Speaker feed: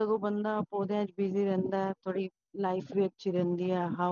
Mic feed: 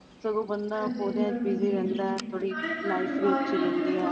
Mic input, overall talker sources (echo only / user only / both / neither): both